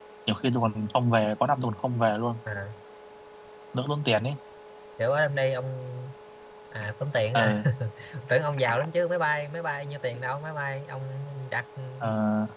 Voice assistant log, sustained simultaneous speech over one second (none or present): none